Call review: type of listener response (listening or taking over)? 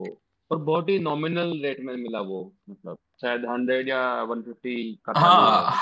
taking over